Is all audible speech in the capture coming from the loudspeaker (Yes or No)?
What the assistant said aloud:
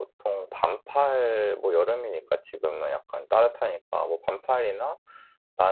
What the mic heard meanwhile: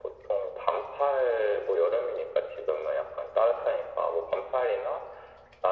Yes